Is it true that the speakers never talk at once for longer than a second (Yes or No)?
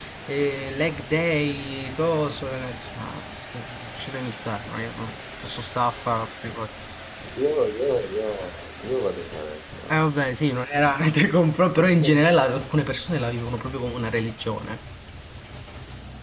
Yes